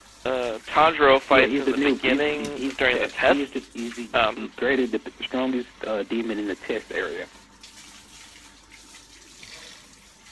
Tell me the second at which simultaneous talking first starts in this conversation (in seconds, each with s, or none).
1.3 s